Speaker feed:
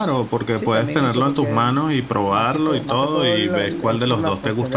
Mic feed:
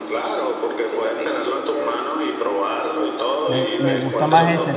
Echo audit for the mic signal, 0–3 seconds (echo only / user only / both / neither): echo only